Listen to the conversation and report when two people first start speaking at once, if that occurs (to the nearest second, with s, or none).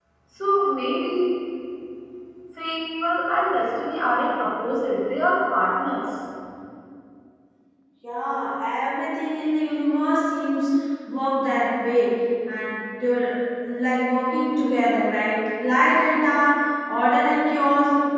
none